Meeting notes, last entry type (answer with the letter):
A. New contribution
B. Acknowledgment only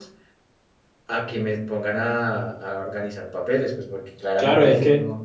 A